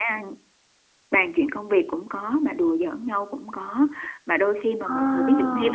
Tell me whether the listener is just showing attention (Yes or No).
Yes